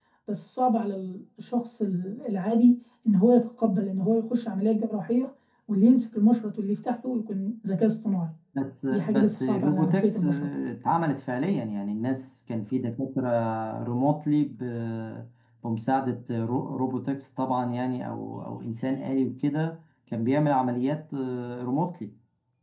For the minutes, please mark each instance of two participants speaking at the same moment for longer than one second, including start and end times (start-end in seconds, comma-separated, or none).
8.9-10.2